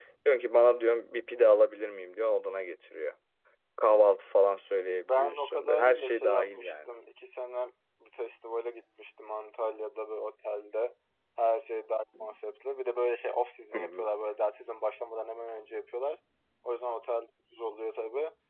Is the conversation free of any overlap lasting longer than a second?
No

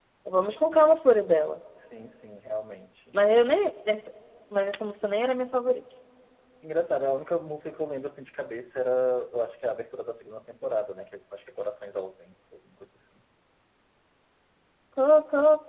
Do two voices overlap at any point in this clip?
No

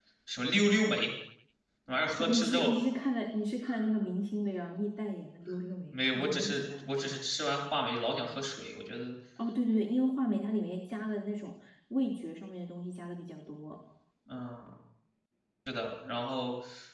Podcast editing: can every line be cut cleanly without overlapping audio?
No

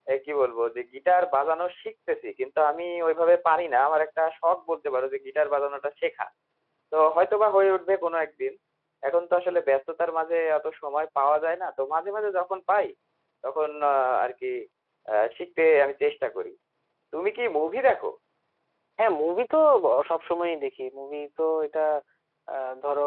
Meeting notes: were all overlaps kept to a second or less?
Yes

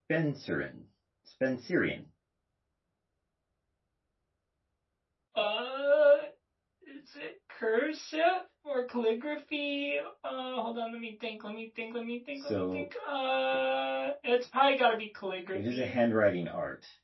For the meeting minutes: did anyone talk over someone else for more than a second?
No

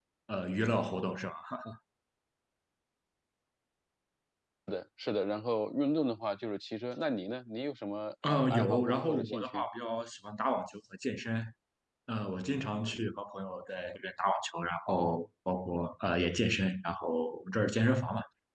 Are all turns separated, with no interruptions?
No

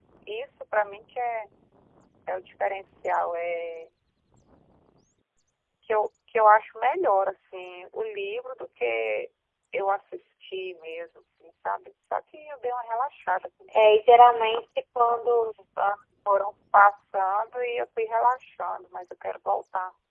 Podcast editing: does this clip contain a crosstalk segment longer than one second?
No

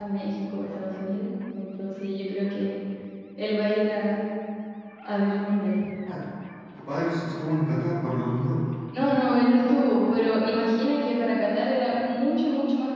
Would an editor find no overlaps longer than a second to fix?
Yes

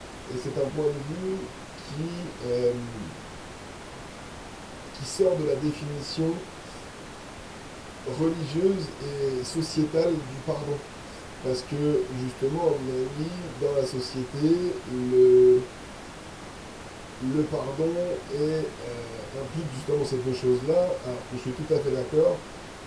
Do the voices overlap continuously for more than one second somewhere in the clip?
No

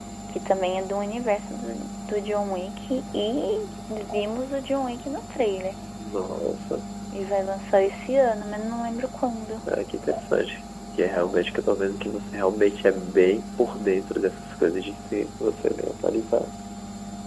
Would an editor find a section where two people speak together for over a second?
No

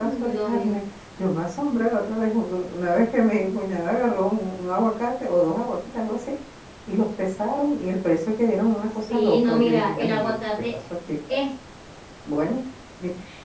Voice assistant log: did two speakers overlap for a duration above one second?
Yes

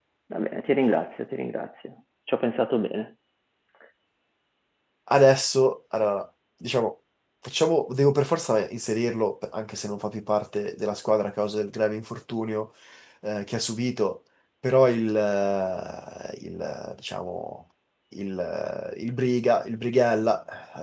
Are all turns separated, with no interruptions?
Yes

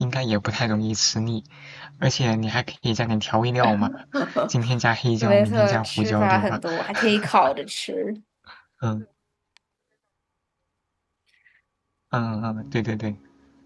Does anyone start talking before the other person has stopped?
Yes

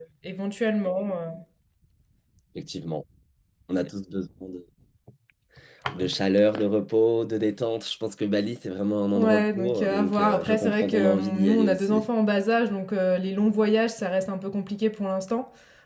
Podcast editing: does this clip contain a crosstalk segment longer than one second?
Yes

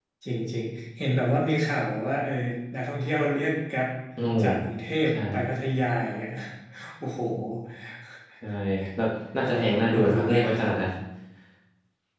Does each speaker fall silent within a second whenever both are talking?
No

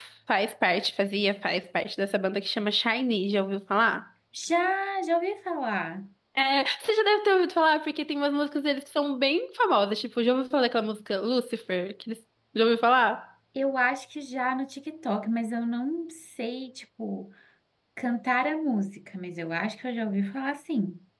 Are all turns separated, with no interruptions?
Yes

